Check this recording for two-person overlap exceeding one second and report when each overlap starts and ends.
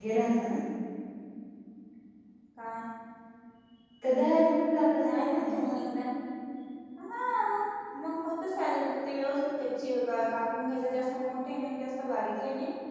none

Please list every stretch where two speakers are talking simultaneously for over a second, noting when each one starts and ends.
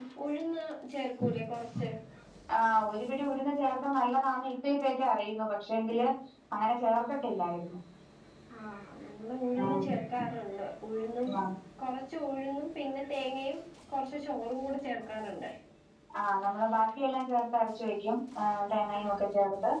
none

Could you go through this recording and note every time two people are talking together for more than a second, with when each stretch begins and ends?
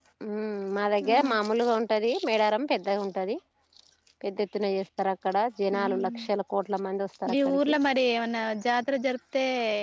none

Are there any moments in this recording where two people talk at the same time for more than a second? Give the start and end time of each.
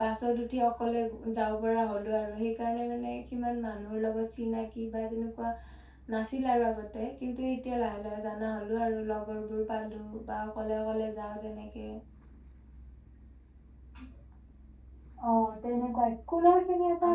none

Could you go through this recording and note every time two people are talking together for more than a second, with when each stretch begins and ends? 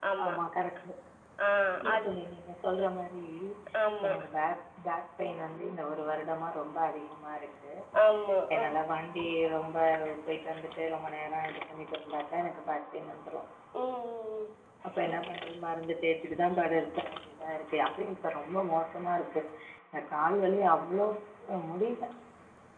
none

